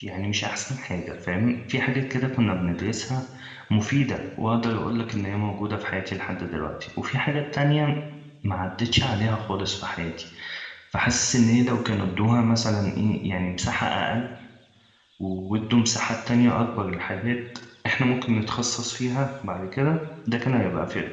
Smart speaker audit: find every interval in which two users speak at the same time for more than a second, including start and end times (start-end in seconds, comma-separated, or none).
none